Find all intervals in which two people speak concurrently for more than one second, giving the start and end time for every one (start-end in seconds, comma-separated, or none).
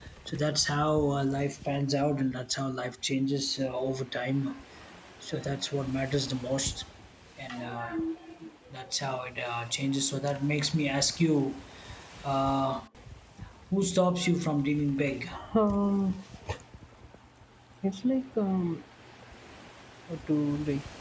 none